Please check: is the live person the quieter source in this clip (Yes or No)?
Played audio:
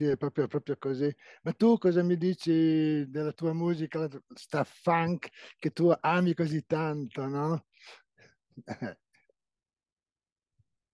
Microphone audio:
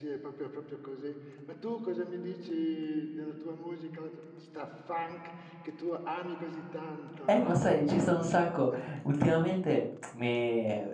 No